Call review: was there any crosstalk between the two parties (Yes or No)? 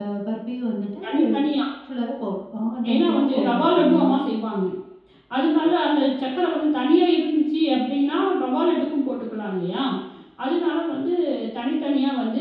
Yes